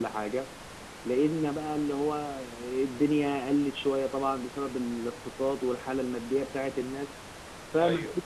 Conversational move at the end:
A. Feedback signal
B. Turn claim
A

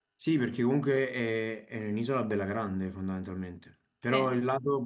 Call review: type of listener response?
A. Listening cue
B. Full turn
A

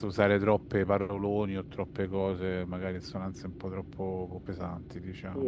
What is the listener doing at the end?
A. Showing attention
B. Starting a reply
B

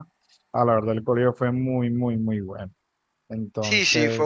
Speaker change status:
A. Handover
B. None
A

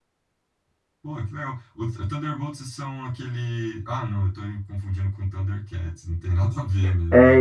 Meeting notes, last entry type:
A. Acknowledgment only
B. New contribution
B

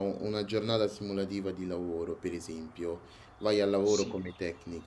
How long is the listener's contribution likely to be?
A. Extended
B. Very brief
B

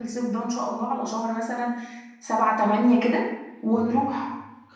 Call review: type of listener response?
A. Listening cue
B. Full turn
B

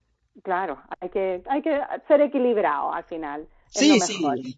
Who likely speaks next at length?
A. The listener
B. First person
A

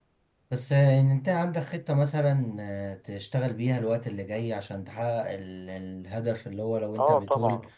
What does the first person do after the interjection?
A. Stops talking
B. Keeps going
B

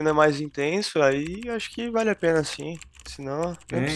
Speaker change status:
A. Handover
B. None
A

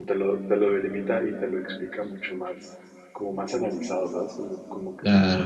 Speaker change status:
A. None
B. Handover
B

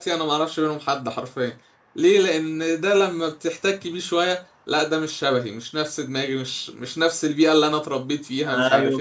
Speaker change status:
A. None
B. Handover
B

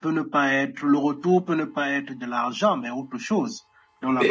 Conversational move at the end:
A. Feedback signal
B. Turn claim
B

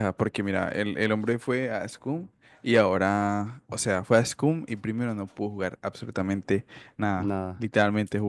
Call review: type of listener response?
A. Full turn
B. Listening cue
B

